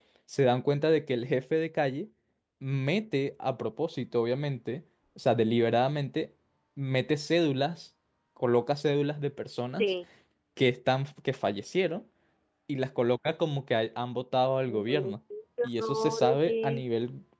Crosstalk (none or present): present